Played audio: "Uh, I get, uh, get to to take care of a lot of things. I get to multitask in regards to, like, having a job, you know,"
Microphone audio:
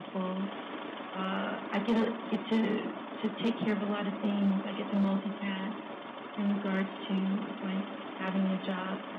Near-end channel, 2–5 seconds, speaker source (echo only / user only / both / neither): echo only